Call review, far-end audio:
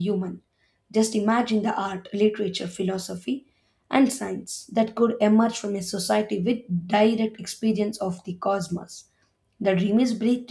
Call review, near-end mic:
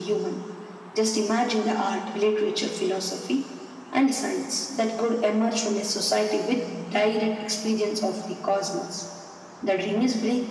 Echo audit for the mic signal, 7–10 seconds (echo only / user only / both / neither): echo only